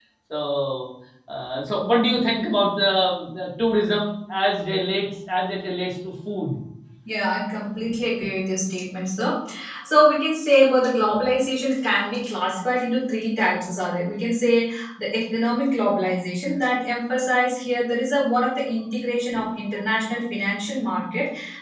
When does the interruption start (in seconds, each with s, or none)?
none